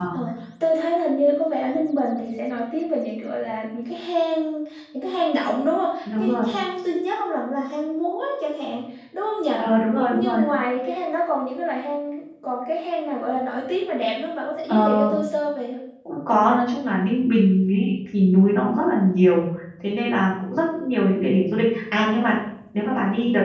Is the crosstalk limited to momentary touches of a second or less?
Yes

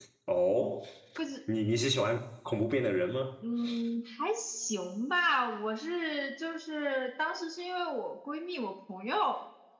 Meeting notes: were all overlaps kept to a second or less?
Yes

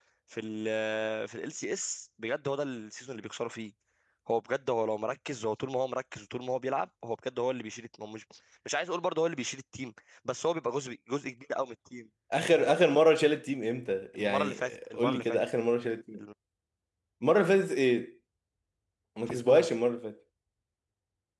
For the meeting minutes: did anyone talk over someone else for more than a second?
Yes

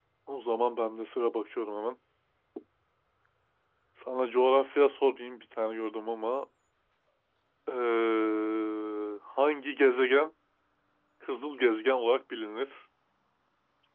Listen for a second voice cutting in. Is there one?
No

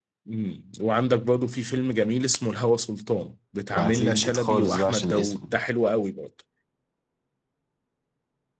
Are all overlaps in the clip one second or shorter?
No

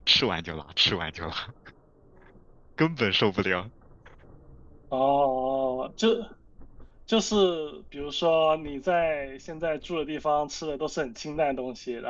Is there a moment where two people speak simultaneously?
No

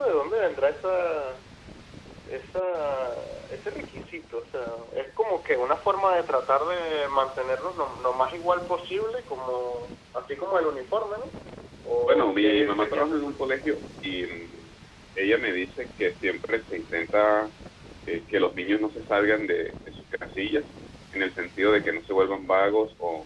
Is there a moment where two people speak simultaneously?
Yes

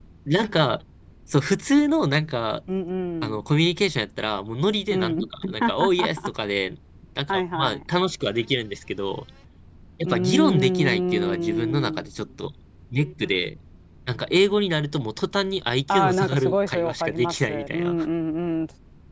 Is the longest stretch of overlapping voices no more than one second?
No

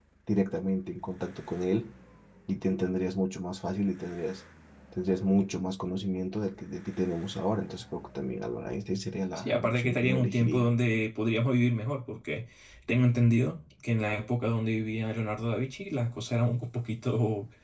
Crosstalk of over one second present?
Yes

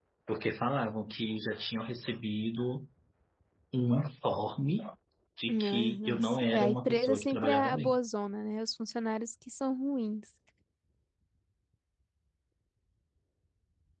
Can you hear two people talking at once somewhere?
Yes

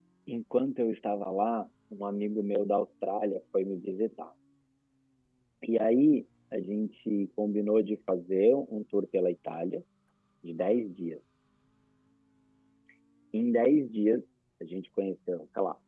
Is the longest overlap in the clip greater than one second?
No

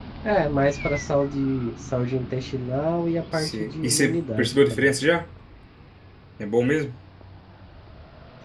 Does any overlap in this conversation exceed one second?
Yes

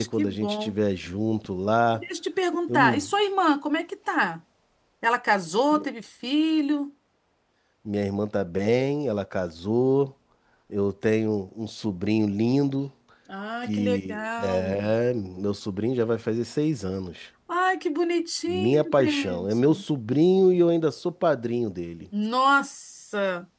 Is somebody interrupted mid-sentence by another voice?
Yes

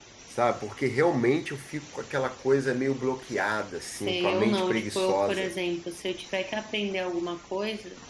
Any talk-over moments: Yes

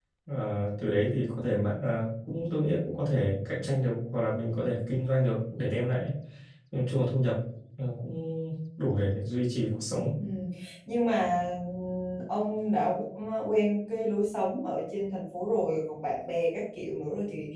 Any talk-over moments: No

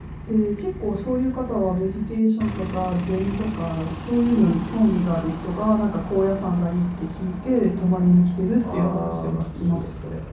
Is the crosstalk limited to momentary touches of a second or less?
No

